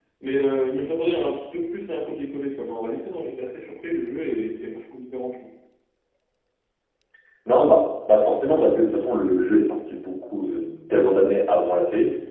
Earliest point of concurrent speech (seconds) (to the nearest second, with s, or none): none